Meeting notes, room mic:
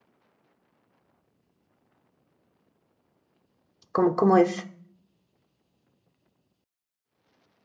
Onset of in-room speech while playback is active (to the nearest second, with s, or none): 4 s